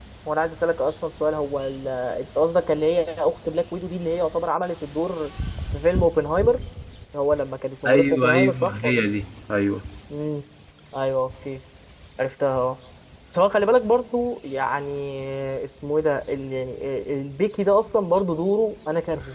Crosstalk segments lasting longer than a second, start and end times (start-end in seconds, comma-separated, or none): 7.9-9.1